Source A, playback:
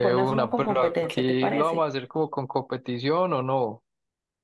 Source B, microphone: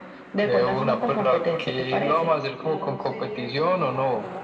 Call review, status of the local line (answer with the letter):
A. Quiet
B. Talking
B